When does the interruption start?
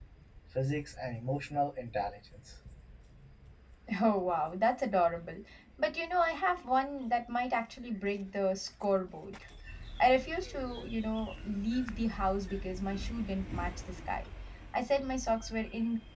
none

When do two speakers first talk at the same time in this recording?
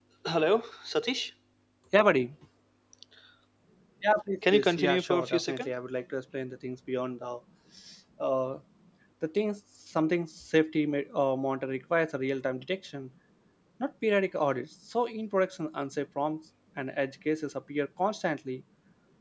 5 s

